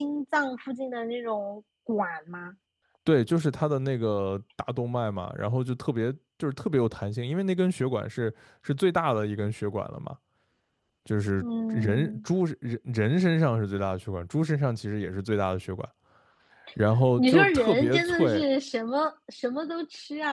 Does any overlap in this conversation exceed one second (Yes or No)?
Yes